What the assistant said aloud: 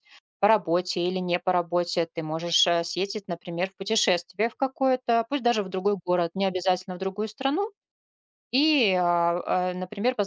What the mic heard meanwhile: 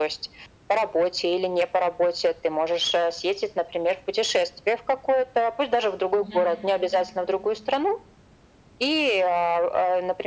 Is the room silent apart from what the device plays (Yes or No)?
No